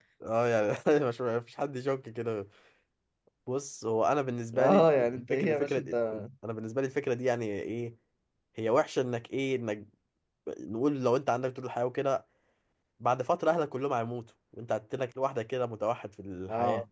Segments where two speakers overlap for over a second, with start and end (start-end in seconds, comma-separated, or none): 4.5-5.9